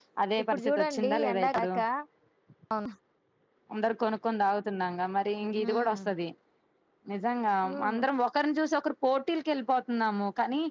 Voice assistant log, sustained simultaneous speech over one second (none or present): present